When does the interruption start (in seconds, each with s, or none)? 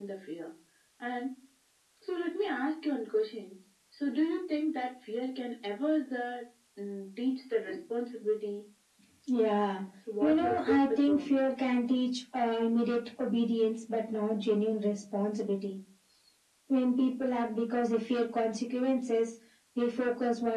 10.2 s